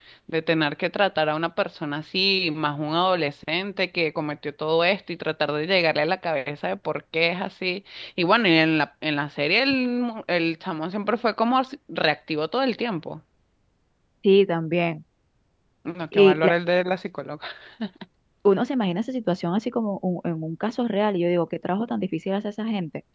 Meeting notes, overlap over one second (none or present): none